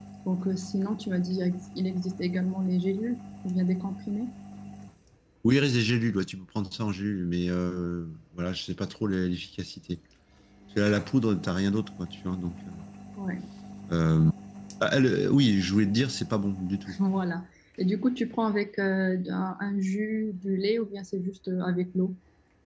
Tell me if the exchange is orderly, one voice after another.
Yes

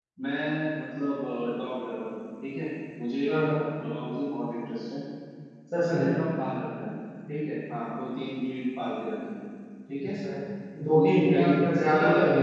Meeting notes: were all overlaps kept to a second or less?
No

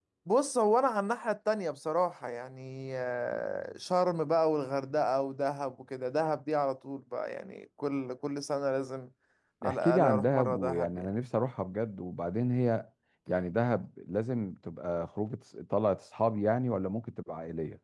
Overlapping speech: Yes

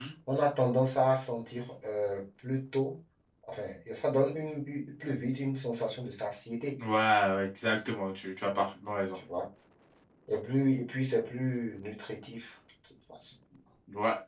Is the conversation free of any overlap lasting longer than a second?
Yes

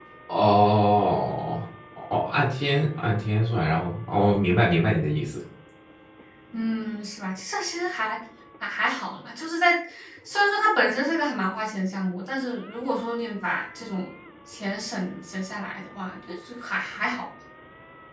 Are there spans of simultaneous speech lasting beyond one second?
No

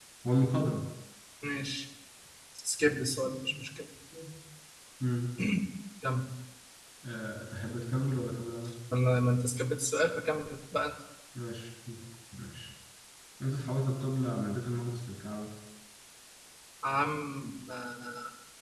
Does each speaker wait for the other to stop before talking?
Yes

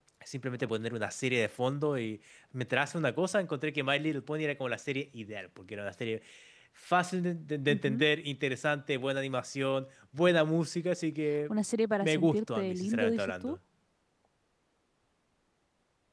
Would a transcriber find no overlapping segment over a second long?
No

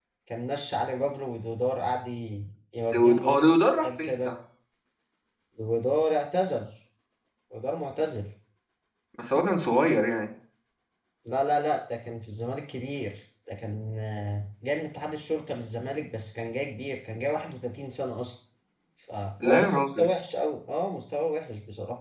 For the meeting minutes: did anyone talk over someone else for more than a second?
Yes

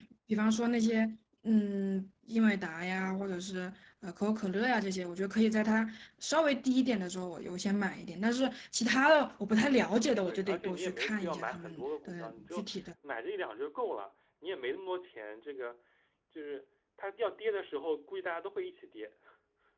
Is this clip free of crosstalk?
No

